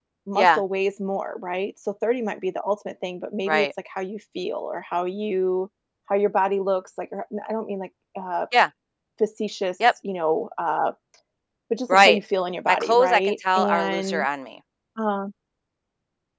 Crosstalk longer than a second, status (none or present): present